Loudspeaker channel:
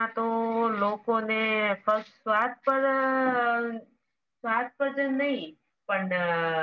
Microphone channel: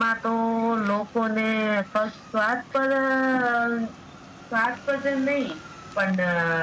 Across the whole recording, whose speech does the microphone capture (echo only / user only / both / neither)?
echo only